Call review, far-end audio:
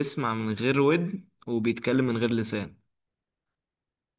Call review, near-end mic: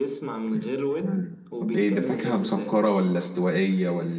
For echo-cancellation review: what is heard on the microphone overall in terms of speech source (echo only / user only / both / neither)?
both